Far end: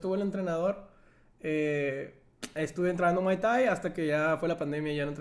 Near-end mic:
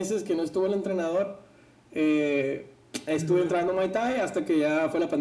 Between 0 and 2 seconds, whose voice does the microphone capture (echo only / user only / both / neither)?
echo only